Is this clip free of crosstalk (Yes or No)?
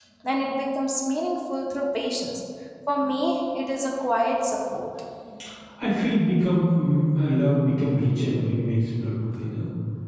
Yes